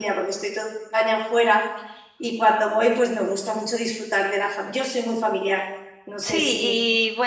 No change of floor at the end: No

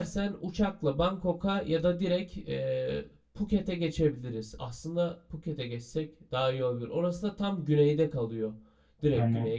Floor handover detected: Yes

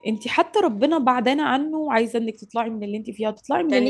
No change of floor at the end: No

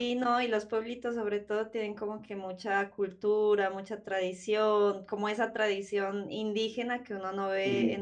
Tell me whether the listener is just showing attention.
Yes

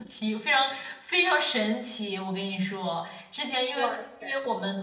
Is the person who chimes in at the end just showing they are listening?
Yes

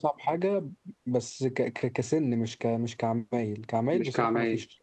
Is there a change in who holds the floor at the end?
No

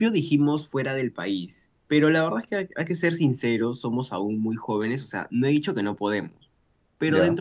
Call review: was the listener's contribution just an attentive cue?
Yes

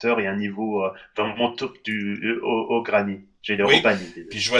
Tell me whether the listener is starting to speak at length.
Yes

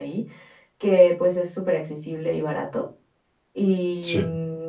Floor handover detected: No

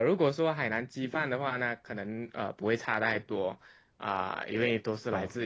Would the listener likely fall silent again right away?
Yes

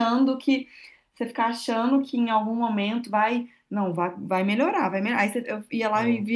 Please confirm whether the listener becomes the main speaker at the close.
No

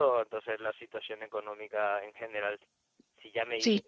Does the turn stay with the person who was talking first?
Yes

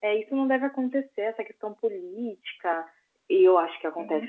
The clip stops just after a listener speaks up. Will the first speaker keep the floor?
No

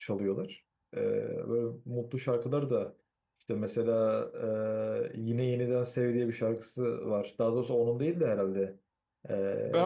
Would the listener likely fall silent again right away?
No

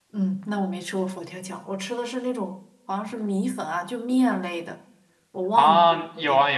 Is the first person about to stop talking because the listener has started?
Yes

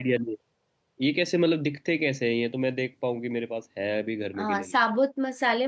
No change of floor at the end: No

